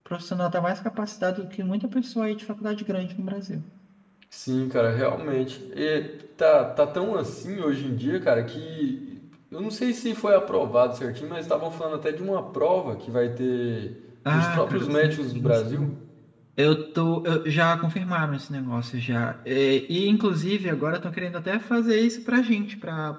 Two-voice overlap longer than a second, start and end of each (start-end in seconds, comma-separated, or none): 14.3-15.9